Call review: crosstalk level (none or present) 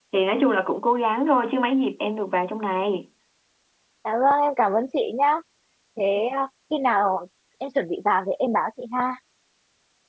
none